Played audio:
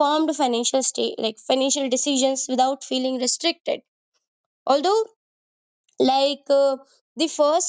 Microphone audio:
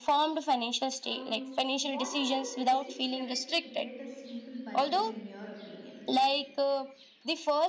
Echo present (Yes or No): Yes